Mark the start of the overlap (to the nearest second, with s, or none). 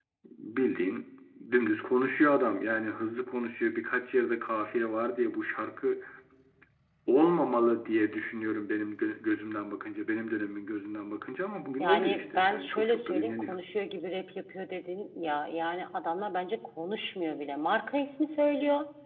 12 s